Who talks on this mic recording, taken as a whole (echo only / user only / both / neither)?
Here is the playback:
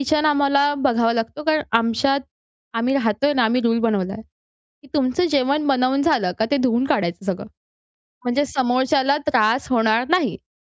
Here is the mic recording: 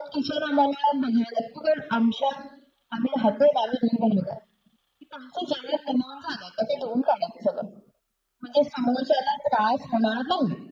echo only